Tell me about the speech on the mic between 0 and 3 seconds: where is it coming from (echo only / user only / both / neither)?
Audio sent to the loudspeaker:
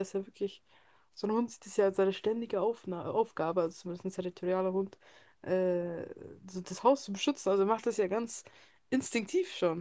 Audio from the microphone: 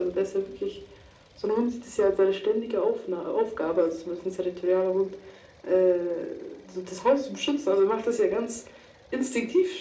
echo only